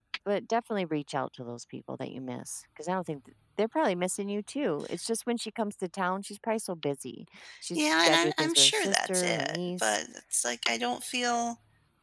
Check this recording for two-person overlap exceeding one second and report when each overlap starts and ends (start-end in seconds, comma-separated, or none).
7.8-10.0